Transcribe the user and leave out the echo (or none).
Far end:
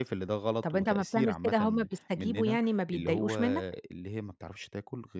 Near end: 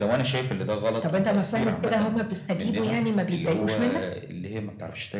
none